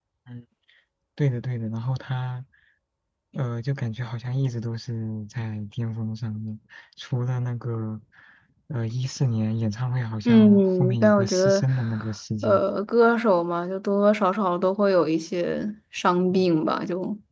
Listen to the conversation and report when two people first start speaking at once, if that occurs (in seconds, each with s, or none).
10.2 s